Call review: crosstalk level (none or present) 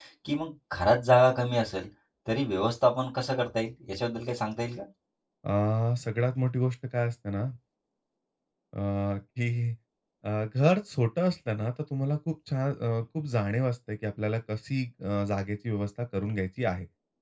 none